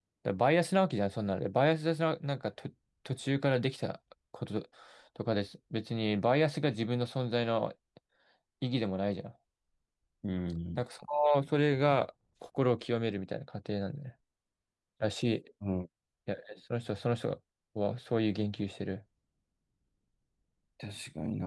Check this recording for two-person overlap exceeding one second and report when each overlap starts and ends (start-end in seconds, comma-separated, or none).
none